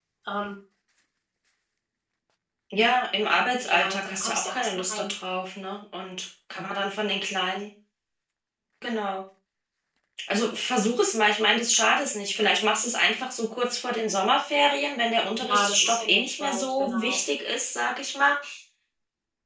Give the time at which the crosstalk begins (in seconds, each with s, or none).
3.6 s